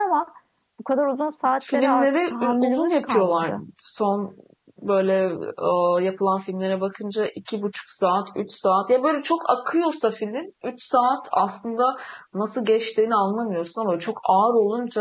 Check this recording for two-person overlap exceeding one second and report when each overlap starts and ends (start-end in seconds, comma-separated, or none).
1.7-3.6